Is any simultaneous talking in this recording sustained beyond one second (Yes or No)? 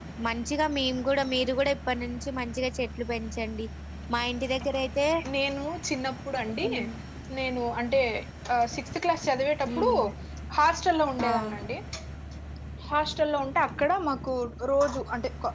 No